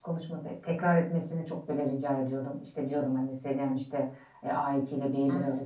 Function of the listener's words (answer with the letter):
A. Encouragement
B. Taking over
A